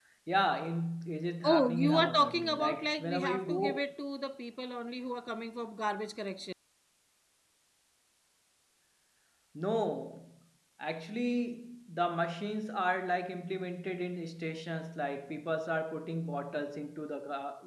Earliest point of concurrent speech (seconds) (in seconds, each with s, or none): 1.4 s